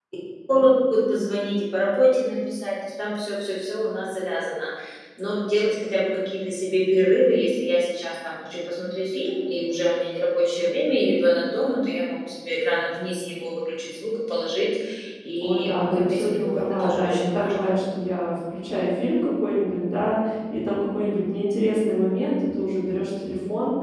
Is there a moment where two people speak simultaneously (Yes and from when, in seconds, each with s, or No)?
Yes, from 15.4 s